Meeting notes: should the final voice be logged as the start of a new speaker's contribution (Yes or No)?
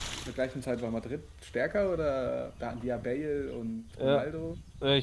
Yes